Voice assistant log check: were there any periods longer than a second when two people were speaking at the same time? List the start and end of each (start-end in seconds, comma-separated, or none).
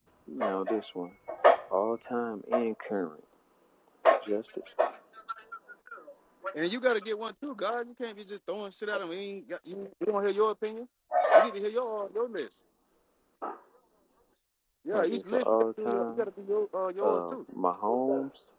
14.9-16.3